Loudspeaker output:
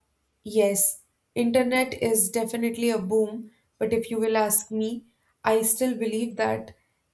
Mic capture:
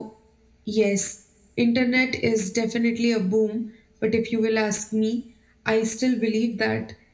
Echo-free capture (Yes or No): No